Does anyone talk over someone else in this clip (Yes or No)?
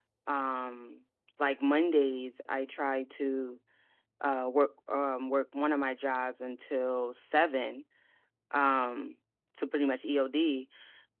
No